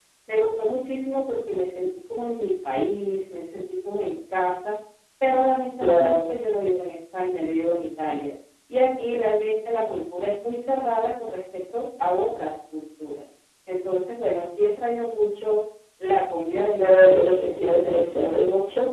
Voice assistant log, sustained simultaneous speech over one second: present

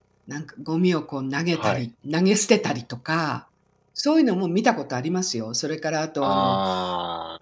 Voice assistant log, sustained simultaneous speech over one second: none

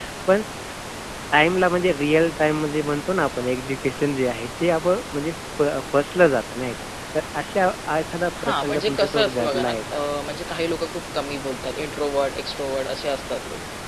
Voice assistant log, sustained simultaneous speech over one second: present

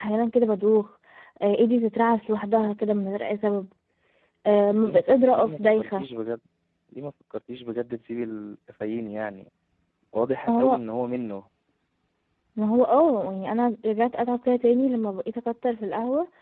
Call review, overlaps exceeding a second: present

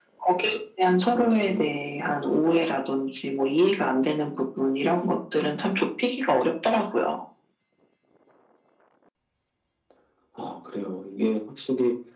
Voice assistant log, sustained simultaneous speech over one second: none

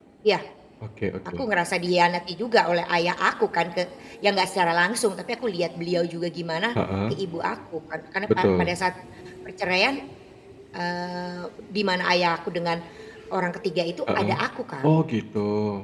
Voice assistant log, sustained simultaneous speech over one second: none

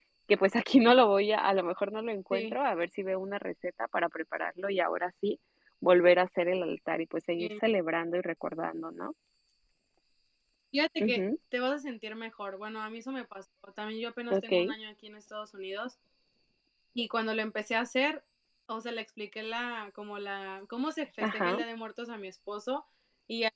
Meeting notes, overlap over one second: none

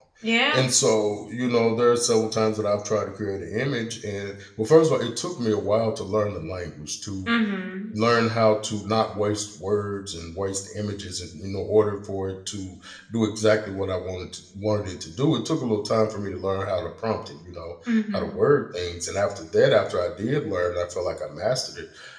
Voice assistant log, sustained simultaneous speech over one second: none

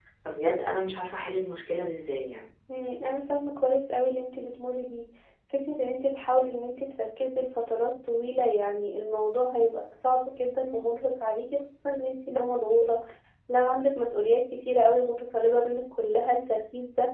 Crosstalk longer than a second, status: none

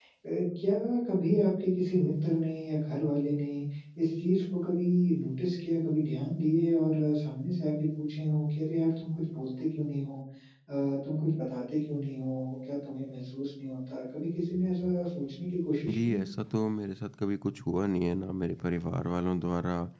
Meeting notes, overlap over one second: none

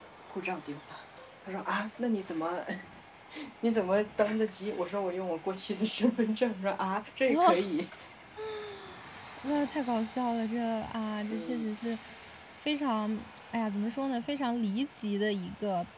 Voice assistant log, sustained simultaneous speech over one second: none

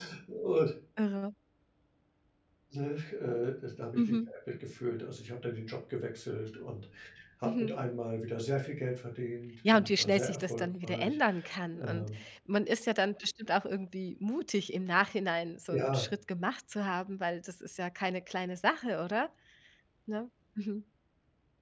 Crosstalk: present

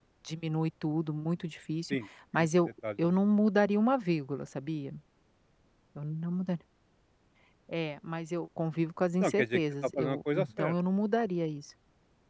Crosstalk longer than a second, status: present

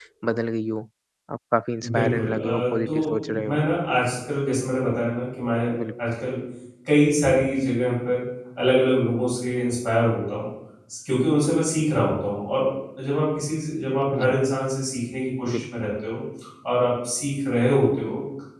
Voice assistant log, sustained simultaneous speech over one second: present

